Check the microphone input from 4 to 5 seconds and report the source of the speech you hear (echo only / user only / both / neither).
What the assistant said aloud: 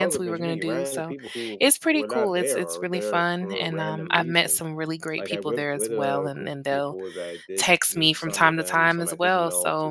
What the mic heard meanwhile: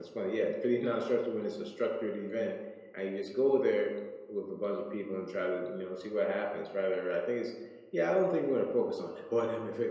user only